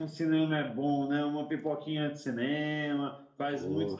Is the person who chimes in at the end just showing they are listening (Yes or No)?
No